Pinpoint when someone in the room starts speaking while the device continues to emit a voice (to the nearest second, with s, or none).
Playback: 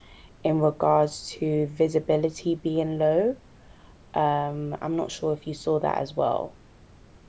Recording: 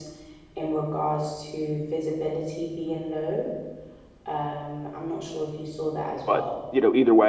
6 s